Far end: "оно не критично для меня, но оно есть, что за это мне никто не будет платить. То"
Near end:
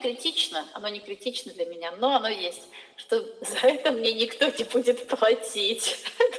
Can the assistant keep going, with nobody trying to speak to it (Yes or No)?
Yes